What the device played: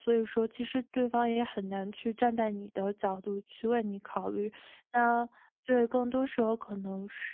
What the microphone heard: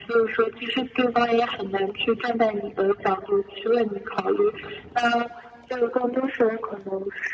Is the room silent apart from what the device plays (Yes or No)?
Yes